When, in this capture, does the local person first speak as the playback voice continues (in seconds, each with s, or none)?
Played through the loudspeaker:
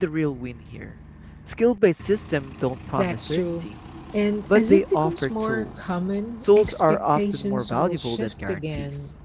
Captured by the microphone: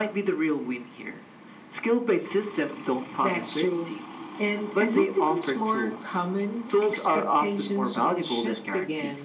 none